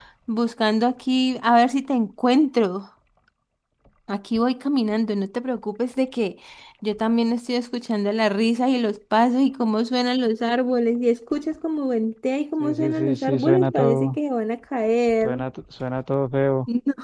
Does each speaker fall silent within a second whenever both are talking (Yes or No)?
No